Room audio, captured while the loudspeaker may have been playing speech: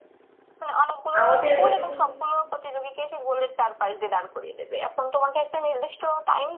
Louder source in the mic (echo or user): user